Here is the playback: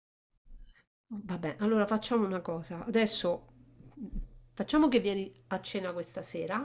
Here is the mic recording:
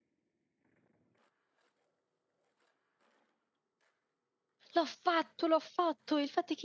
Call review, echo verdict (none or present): none